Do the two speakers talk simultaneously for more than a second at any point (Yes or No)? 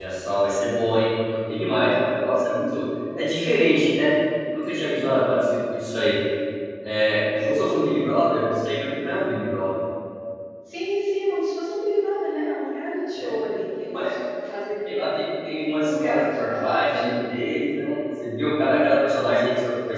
Yes